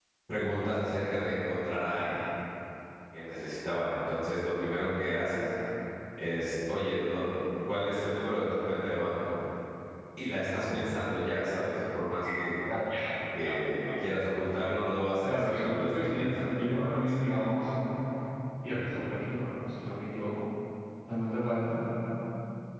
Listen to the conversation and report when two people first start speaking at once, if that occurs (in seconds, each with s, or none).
15.2 s